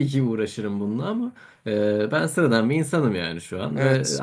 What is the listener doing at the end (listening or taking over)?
listening